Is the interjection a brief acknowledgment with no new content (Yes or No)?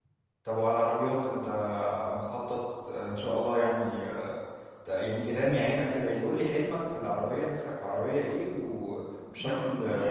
No